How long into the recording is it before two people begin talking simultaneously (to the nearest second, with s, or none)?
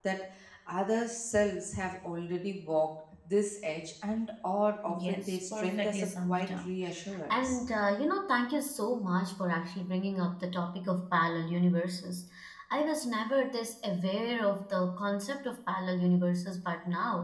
5 s